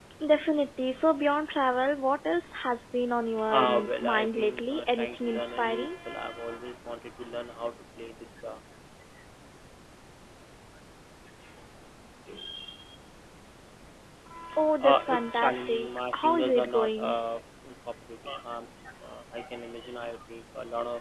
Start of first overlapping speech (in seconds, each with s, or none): 3.5 s